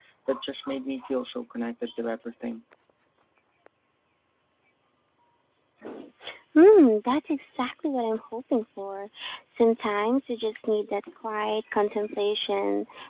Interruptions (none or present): none